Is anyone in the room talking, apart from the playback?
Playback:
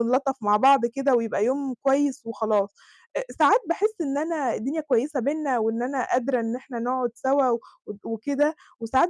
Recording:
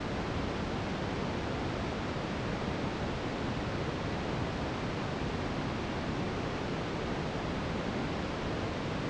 No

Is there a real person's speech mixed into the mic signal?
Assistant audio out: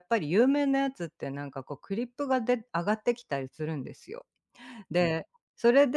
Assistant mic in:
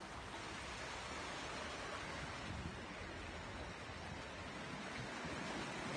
No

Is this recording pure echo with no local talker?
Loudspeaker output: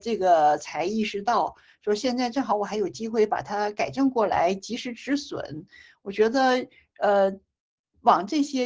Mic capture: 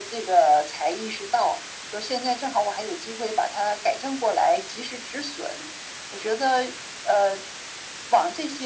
Yes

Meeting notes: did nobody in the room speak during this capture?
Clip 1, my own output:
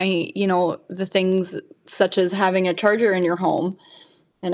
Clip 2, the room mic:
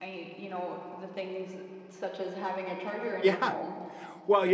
No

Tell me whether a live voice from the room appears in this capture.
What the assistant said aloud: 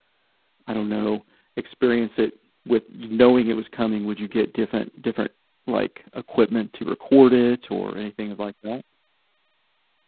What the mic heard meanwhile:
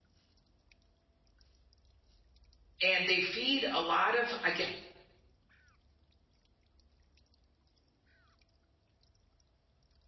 Yes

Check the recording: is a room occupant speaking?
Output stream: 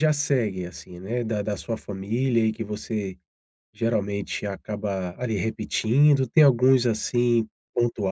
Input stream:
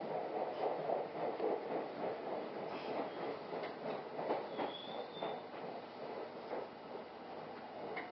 No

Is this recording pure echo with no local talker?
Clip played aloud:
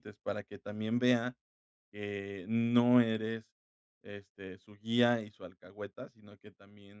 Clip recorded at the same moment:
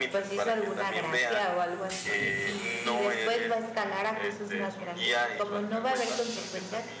No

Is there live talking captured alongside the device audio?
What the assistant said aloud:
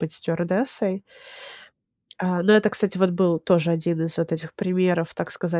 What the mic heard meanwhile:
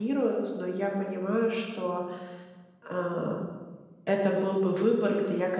Yes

